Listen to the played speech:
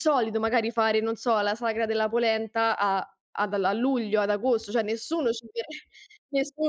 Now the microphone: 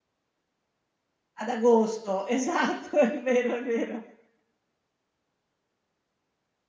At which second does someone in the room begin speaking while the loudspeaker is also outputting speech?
1.4 s

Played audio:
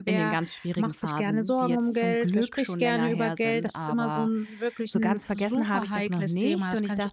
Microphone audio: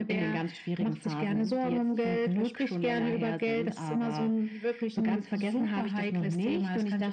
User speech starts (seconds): none

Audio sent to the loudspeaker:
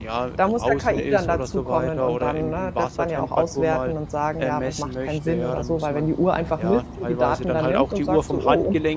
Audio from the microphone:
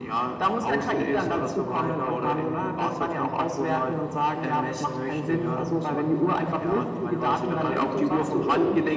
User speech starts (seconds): none

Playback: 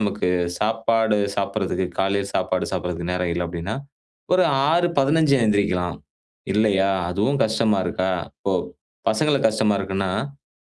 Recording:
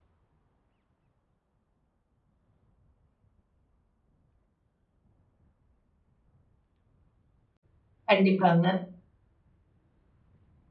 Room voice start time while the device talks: 8.1 s

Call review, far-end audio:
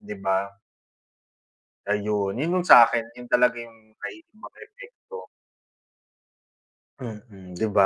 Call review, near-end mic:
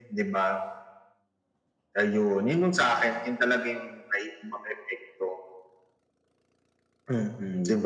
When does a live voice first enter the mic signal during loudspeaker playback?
none

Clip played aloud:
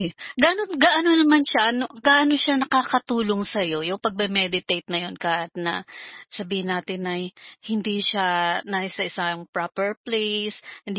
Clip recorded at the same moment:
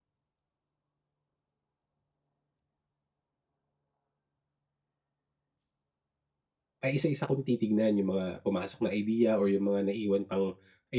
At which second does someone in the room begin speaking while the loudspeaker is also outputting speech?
6.8 s

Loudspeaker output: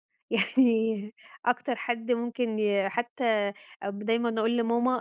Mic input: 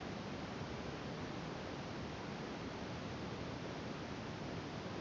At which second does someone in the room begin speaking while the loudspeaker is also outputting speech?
none

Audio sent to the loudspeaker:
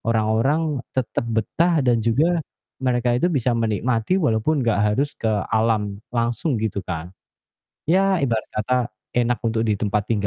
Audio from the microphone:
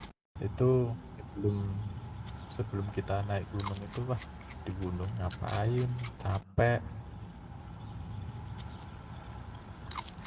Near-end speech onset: 0.4 s

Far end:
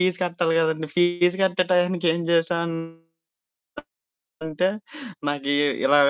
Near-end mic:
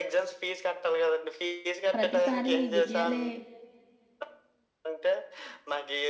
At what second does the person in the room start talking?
1.9 s

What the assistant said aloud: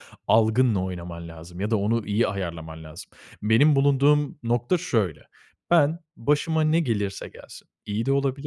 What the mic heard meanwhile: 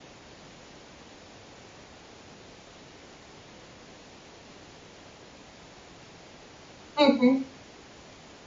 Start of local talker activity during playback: 7.0 s

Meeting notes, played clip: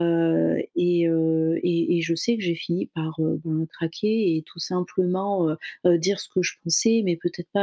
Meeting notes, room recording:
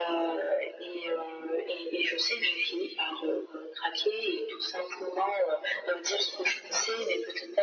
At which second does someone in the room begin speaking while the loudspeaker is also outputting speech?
none

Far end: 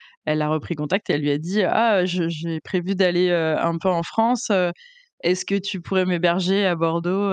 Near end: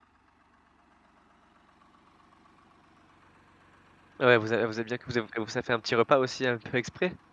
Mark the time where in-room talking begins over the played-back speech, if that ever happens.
4.2 s

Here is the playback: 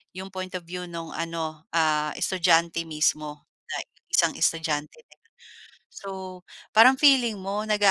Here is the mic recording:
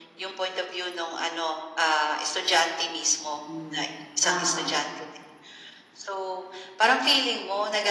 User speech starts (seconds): 3.3 s

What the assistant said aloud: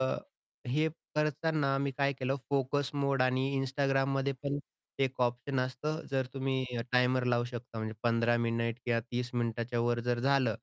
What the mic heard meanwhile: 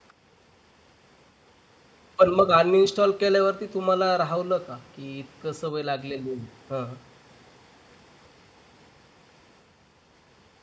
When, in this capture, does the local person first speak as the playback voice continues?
2.2 s

